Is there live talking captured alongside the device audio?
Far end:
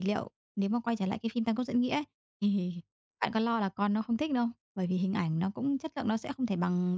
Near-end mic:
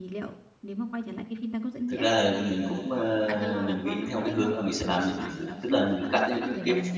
Yes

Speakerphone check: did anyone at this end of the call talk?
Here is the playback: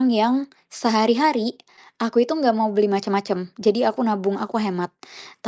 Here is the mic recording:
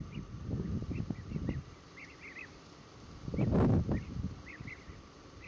No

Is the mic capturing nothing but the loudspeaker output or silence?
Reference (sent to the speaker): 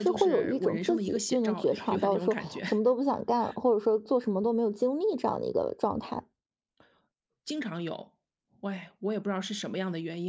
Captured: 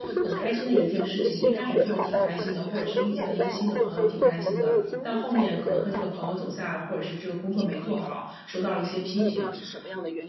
No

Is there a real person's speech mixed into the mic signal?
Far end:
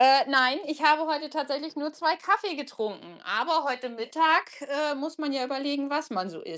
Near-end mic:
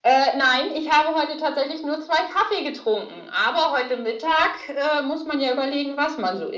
No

